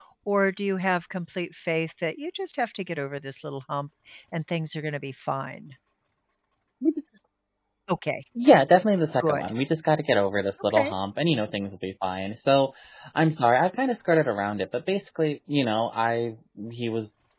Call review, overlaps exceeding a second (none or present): none